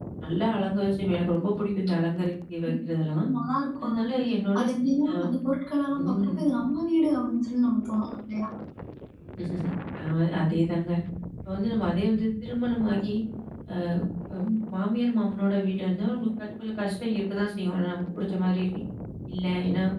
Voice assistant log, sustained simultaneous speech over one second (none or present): none